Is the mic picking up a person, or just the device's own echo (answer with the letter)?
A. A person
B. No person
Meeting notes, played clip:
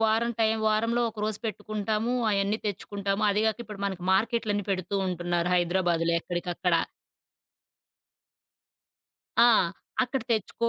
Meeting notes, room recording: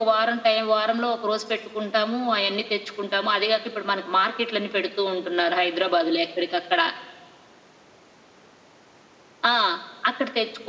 B